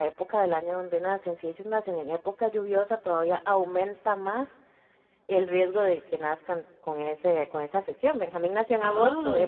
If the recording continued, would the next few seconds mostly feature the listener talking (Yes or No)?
No